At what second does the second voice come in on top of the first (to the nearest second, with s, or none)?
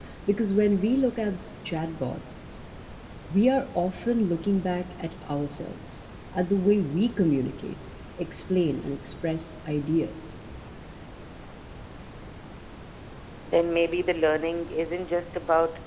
none